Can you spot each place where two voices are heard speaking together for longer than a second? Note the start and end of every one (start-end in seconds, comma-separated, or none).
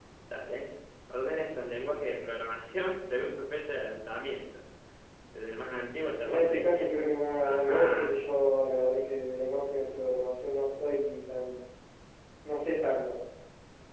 6.2-8.2